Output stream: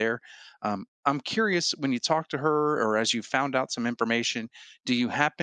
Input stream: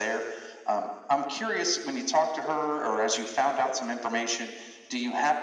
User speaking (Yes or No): No